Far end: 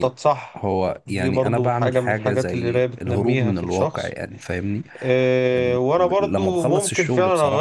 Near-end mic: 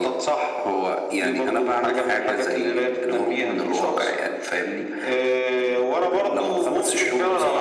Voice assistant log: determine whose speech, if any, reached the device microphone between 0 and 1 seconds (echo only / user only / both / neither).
echo only